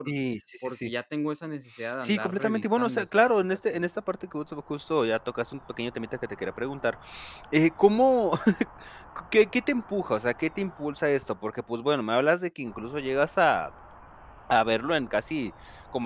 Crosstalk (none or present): present